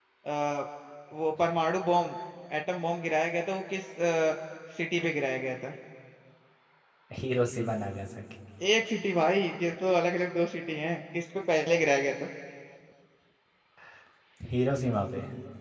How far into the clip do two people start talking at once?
none

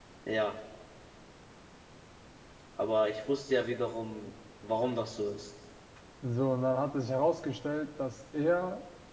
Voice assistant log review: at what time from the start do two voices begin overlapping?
none

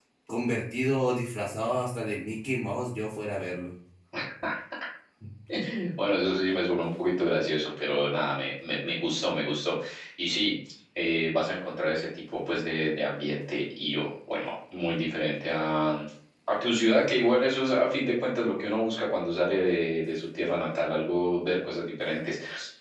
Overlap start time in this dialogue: none

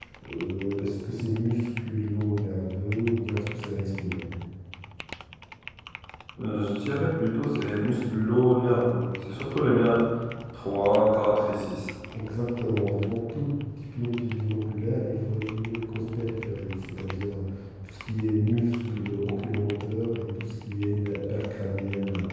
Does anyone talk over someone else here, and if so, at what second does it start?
none

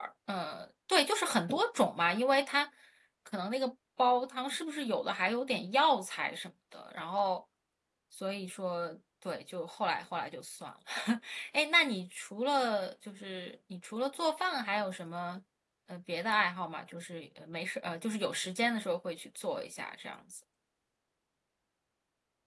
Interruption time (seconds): none

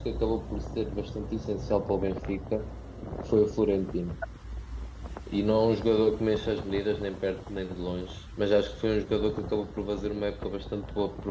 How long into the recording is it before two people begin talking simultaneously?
none

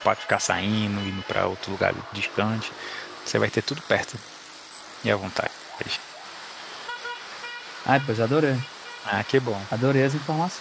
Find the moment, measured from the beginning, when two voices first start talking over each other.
none

